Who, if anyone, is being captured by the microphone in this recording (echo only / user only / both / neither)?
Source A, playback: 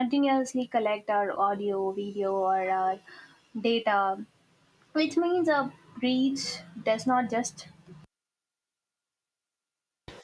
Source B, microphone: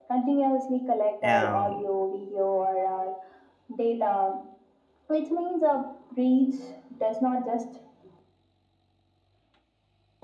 both